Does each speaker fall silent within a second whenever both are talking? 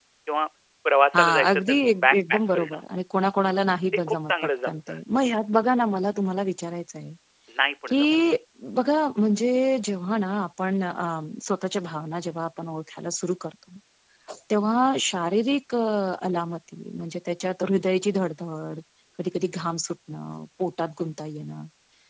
No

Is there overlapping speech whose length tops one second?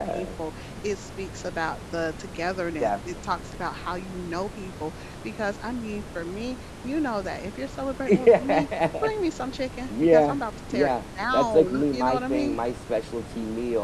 Yes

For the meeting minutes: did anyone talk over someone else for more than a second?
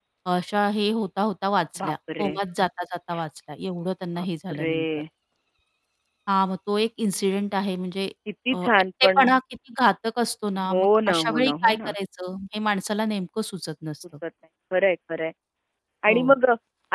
Yes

